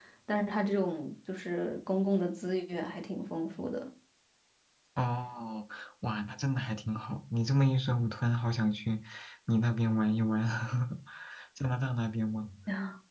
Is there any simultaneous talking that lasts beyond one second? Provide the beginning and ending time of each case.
none

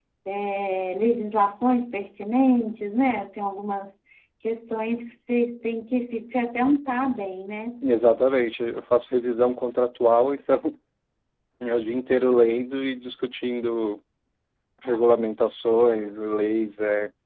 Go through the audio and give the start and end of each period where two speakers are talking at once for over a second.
none

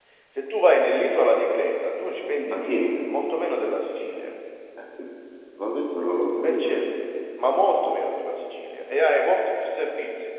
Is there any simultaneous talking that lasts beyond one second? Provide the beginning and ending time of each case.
none

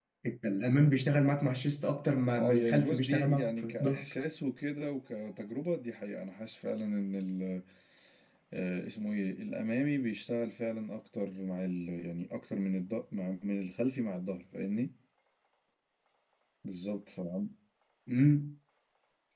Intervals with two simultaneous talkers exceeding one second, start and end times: 2.3-4.0

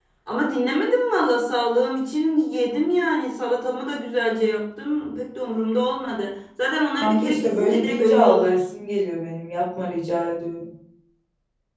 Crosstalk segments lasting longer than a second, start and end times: 7.0-8.6

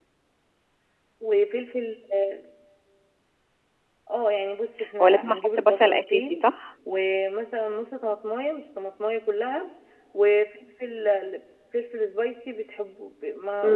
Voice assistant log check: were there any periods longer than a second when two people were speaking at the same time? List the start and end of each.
5.0-6.4

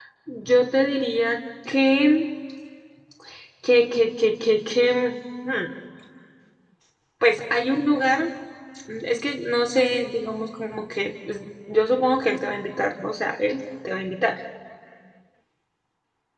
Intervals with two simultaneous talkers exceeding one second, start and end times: none

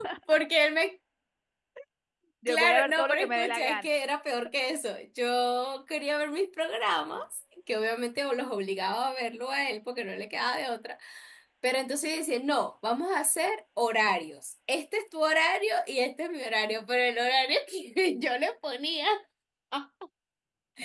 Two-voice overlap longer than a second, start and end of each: 2.5-3.9

